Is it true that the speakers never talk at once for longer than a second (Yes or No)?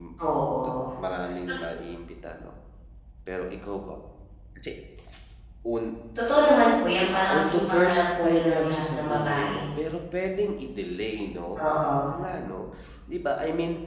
No